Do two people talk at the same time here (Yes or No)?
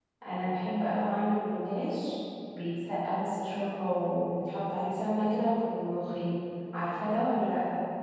No